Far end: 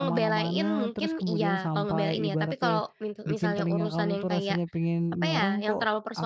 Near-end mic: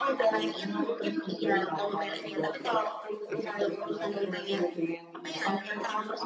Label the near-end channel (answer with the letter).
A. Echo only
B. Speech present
A